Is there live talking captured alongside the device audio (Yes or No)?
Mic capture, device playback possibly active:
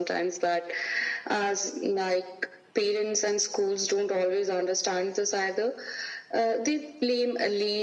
No